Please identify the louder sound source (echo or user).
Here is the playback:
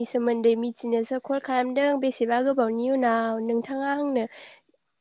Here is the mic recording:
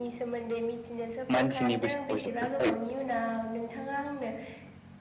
user